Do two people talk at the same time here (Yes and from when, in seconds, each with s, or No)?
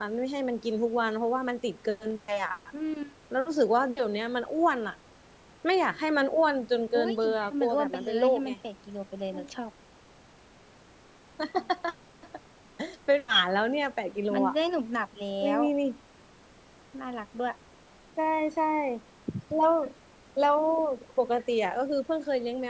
Yes, from 7.0 s